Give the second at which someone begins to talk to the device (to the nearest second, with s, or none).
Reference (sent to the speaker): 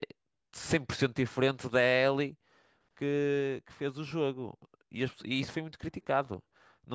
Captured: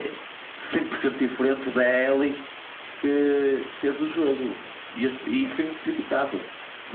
none